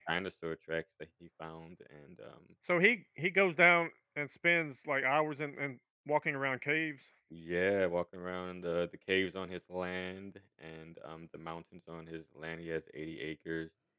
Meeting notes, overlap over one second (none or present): none